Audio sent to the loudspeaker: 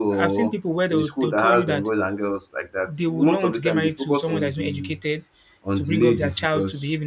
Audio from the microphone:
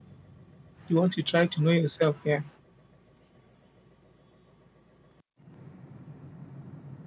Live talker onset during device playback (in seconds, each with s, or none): 0.9 s